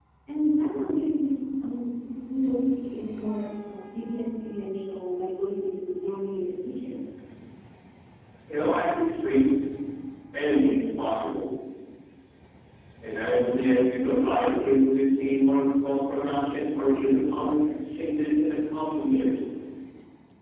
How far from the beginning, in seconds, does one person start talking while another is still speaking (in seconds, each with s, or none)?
none